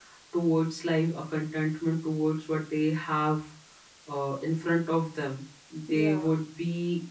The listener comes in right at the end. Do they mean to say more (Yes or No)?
No